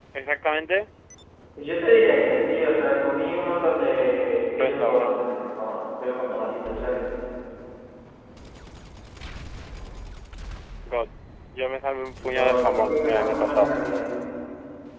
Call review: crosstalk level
present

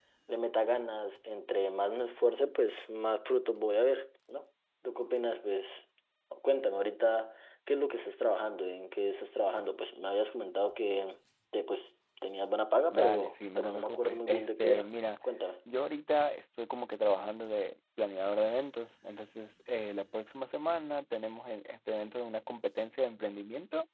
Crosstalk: present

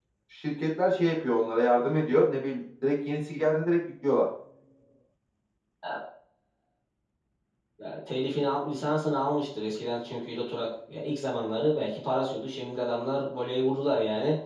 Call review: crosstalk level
none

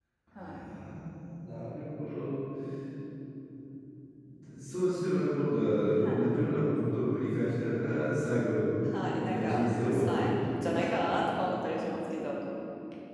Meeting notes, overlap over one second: present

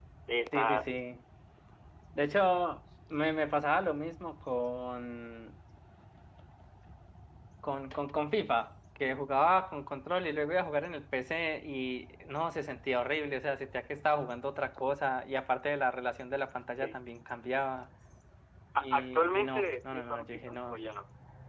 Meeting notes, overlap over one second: present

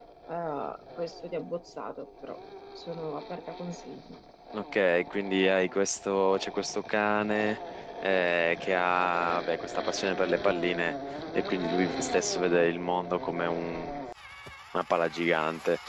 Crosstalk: none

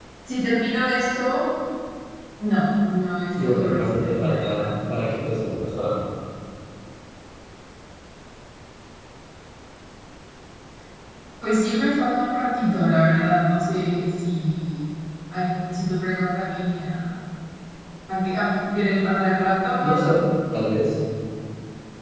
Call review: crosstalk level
present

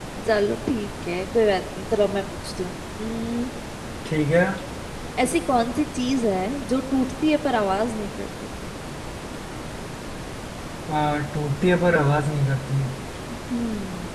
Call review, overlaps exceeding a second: none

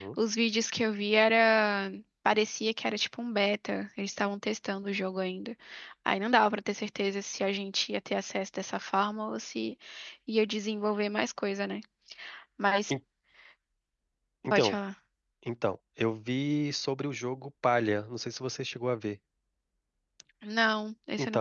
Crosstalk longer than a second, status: none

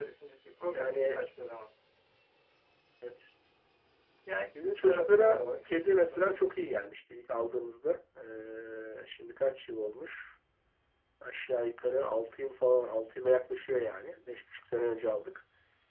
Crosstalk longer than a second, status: present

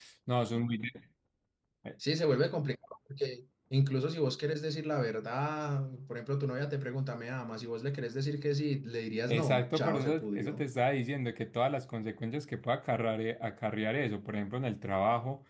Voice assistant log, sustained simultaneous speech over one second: present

